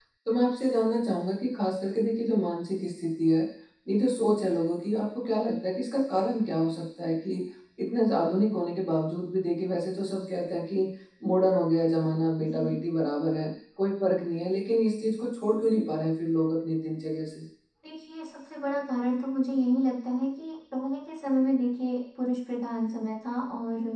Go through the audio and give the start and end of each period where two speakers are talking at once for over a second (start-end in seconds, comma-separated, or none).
none